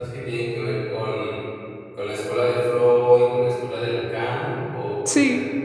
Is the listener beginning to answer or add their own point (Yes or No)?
Yes